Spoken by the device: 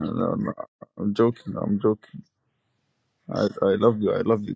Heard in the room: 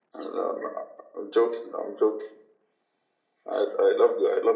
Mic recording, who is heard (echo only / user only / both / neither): echo only